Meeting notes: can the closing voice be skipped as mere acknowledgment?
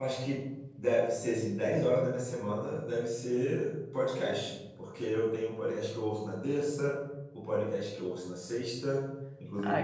Yes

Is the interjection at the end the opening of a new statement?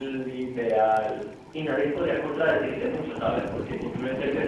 No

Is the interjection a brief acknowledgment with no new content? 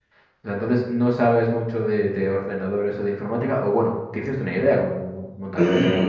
No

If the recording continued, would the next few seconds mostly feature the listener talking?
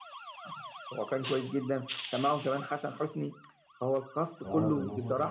Yes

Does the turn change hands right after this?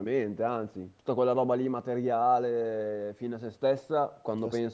No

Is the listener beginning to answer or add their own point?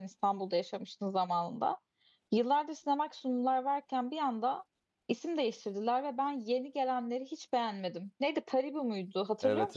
Yes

